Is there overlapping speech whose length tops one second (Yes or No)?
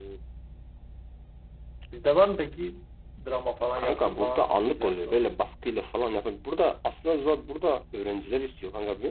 Yes